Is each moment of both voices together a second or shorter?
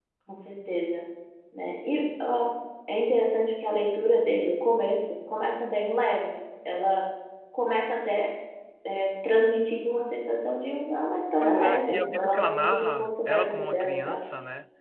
No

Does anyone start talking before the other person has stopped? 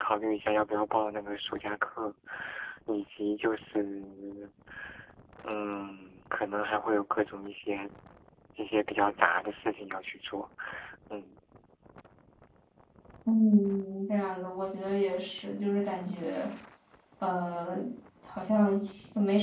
No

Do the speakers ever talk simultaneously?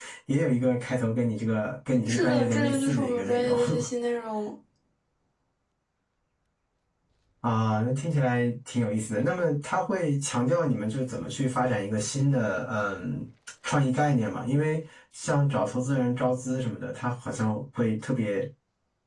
Yes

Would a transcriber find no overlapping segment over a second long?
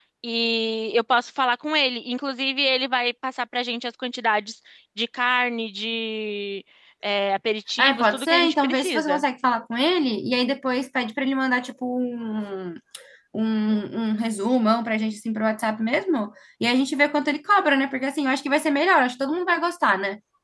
No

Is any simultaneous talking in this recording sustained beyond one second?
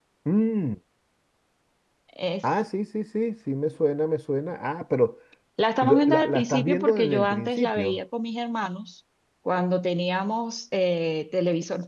Yes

